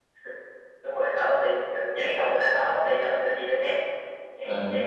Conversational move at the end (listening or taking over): listening